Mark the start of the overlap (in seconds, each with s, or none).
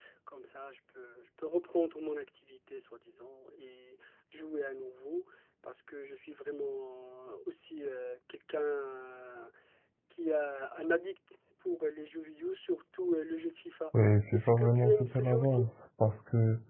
14.3 s